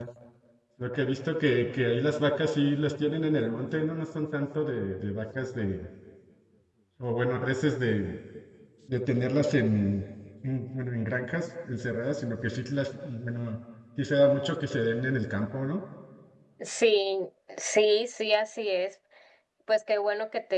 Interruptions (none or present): none